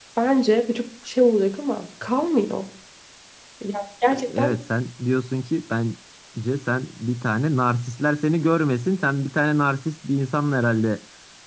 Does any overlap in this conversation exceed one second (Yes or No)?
No